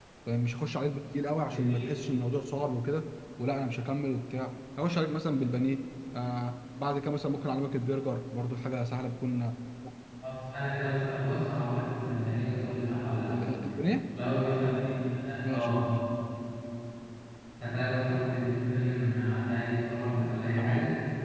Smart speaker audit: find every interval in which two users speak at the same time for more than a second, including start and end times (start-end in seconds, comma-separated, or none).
none